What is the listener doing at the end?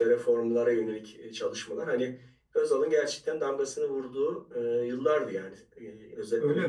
taking over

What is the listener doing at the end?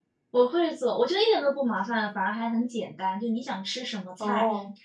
listening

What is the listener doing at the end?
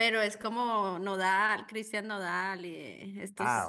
taking over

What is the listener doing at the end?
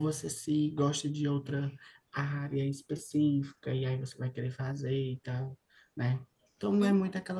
listening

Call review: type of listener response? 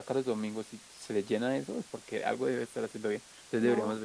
listening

